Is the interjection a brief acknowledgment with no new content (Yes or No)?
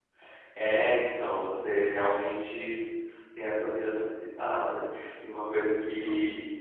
Yes